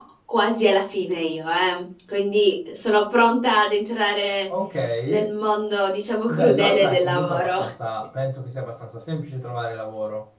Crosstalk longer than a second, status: present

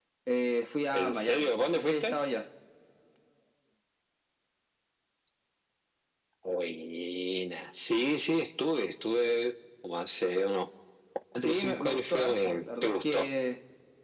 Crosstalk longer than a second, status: present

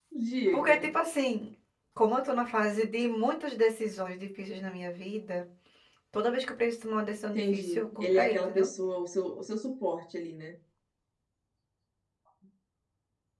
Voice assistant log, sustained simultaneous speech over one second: present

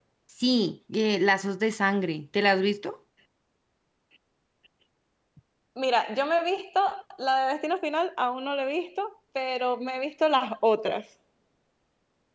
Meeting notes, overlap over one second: none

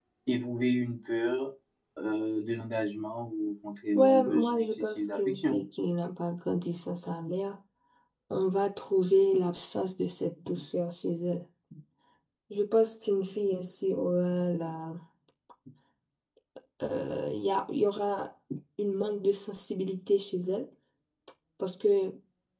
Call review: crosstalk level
present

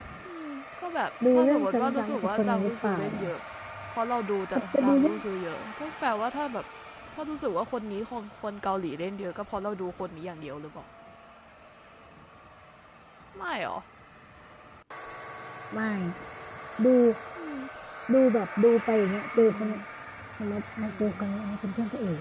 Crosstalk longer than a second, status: present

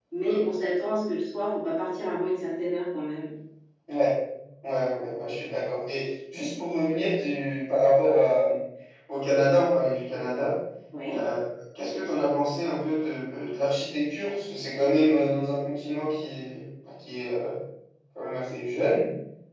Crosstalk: none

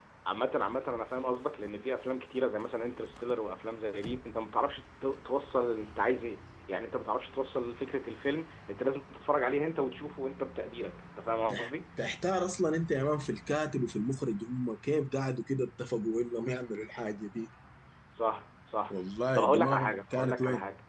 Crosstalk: present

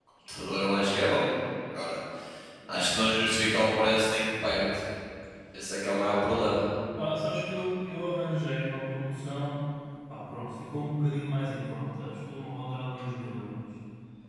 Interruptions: none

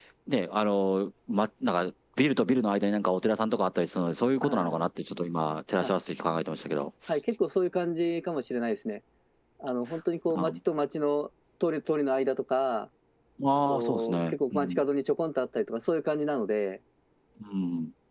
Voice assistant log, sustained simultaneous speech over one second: present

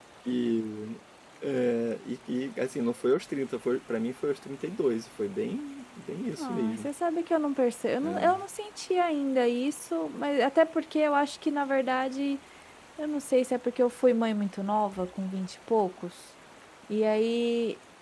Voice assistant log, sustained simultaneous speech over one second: none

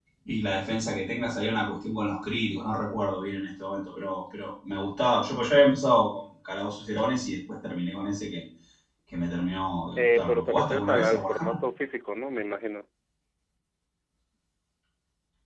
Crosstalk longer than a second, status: present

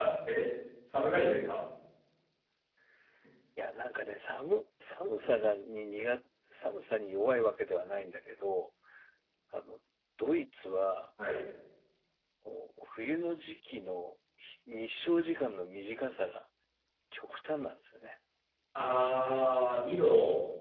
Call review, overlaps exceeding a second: none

